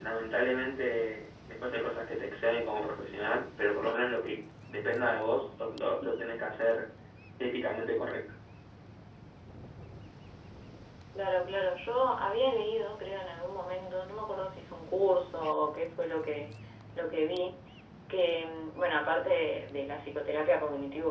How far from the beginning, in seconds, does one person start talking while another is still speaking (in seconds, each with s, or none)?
none